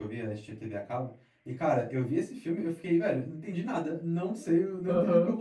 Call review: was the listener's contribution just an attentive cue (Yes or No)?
Yes